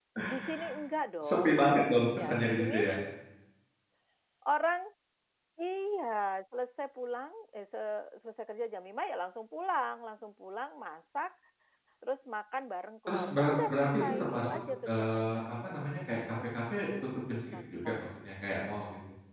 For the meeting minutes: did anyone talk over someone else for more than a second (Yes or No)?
Yes